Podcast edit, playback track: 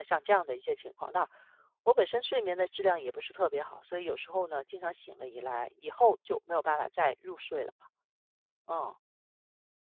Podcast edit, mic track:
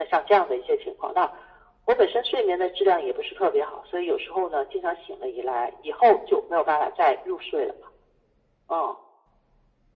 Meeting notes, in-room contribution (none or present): none